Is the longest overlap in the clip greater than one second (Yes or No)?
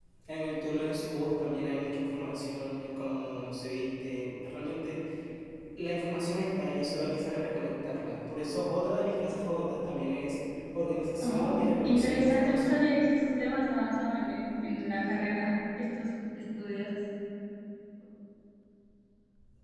Yes